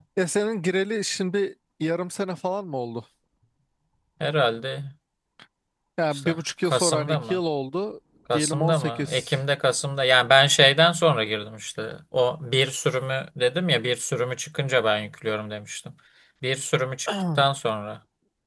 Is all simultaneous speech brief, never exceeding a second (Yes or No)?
No